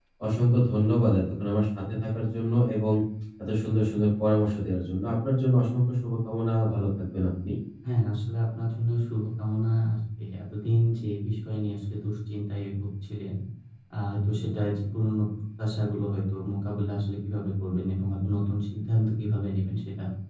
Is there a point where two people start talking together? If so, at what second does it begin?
none

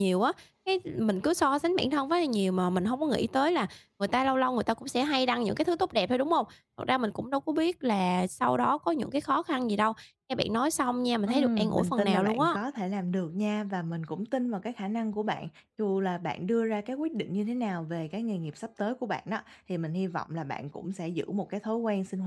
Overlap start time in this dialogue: 11.3 s

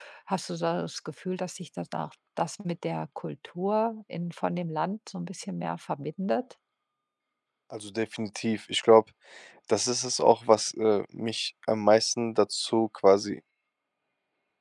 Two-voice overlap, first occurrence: none

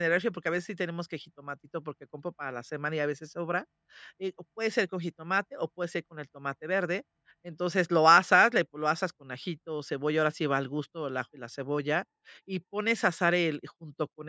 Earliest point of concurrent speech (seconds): none

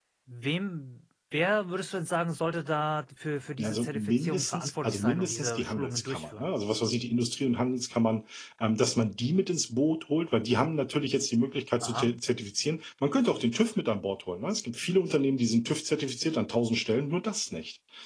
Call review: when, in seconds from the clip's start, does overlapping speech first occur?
3.6 s

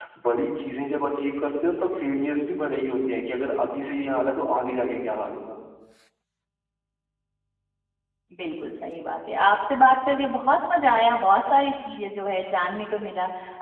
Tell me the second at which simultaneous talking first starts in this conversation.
none

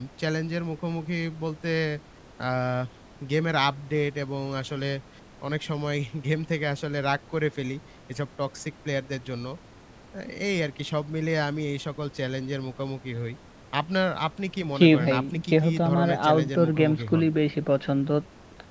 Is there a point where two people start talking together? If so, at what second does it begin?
14.8 s

